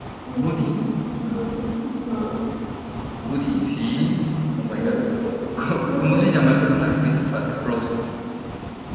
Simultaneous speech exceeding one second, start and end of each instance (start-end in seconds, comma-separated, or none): none